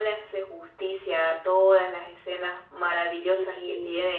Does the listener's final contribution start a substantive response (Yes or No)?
No